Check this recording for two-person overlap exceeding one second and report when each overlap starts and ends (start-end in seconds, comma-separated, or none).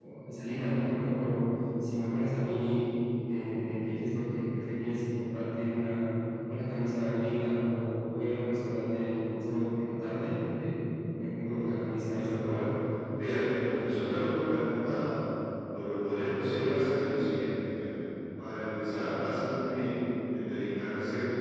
11.2-12.6